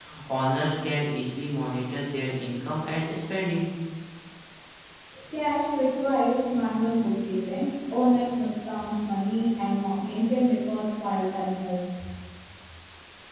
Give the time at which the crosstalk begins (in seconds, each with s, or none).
none